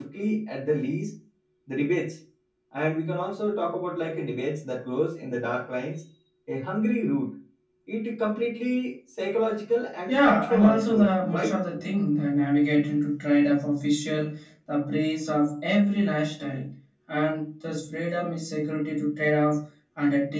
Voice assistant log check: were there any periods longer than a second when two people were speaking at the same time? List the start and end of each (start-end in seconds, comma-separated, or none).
10.1-11.6